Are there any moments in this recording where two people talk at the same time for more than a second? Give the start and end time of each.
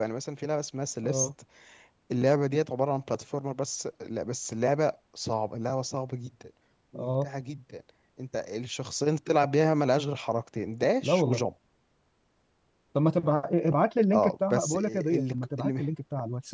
14.1-15.8

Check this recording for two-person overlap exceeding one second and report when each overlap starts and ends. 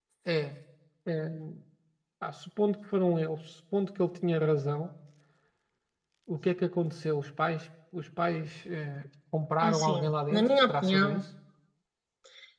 9.6-11.2

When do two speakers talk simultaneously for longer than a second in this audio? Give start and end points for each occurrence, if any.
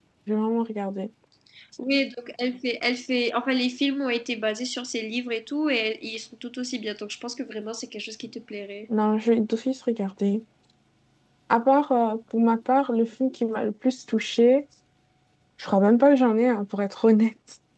none

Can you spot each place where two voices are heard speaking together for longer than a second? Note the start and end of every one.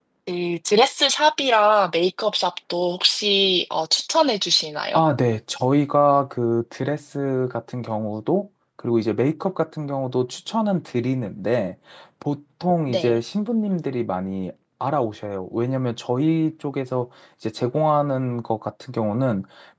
none

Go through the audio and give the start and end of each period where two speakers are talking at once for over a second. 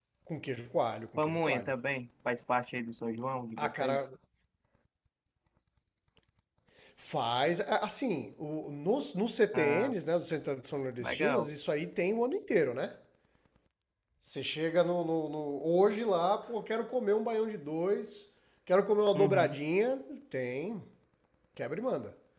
none

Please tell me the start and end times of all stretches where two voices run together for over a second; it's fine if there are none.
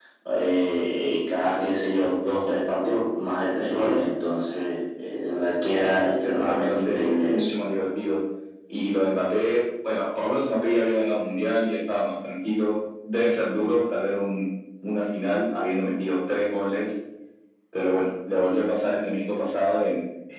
5.7-7.5

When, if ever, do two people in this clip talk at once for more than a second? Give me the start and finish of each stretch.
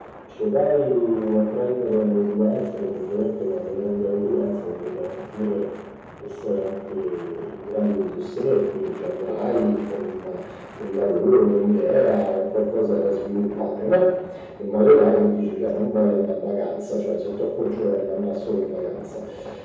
none

